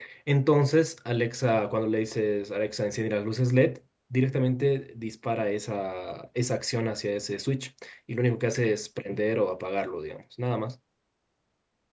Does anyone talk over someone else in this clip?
No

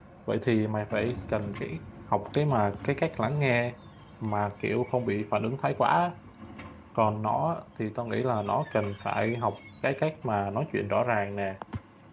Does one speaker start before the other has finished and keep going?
No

